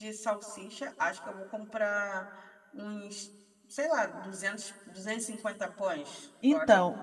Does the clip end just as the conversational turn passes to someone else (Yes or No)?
Yes